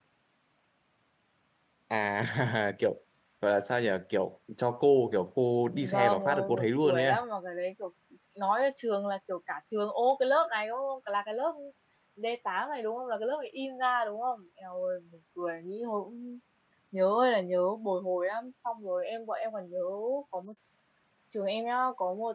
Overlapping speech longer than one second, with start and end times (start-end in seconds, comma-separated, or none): 5.9-7.2